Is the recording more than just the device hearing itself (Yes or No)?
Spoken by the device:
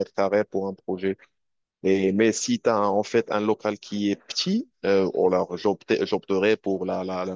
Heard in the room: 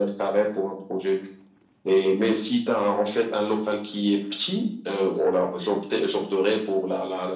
No